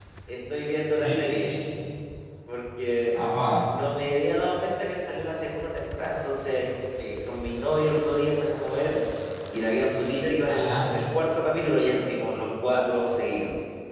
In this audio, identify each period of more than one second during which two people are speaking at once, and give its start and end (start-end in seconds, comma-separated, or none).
none